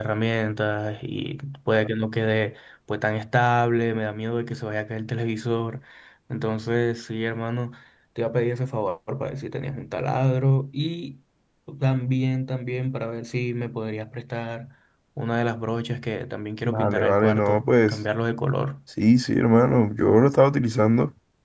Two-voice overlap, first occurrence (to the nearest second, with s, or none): 17 s